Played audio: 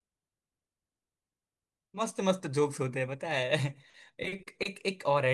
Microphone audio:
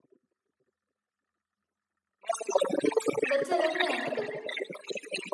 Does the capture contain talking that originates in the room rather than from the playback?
Yes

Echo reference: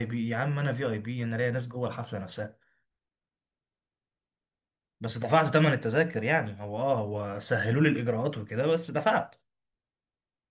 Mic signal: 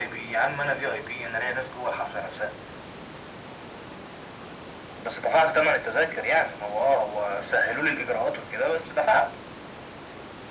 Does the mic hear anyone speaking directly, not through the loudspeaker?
No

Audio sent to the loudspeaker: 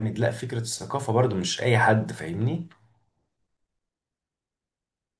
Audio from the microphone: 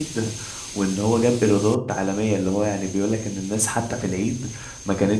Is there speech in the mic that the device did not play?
Yes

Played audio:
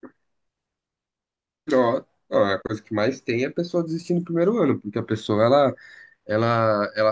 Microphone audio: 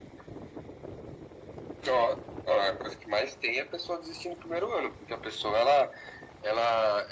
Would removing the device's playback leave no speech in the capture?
Yes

